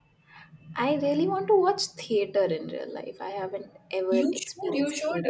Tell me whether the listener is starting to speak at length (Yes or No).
Yes